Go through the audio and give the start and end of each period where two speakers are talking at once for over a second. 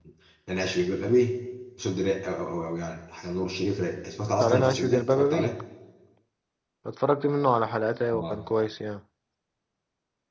4.2-5.5

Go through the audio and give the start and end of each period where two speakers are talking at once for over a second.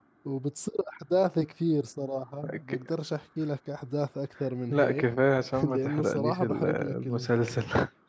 5.6-7.4

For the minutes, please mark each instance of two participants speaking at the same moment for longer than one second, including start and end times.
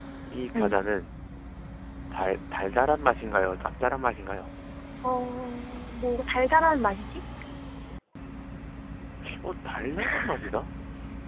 none

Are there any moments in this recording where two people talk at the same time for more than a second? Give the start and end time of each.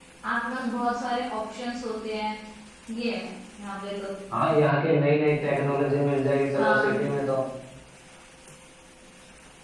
none

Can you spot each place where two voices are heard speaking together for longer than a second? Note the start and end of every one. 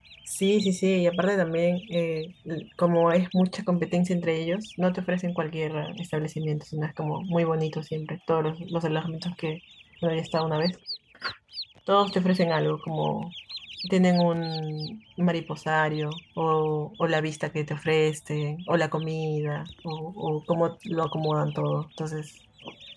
none

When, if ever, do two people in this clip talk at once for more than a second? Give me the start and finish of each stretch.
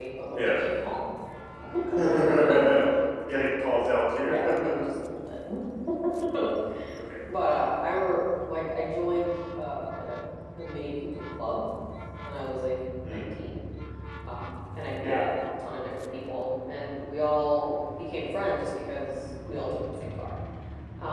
none

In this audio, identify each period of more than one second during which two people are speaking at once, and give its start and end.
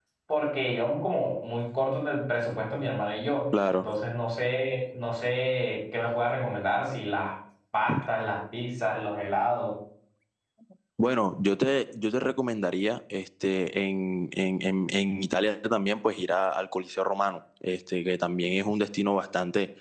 none

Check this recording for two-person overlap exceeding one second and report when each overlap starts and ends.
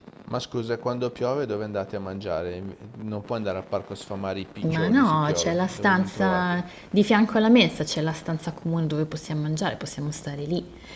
4.6-6.6

